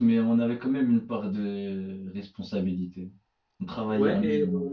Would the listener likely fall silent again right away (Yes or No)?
No